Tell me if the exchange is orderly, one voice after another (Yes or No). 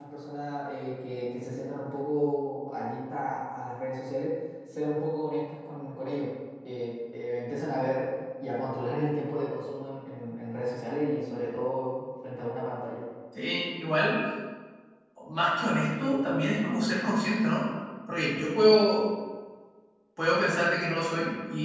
Yes